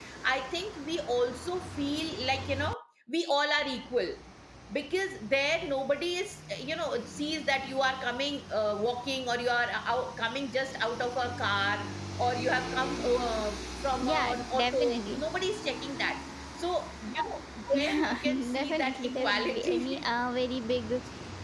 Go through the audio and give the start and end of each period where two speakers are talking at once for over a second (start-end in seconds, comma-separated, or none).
14.0-15.2, 17.8-20.0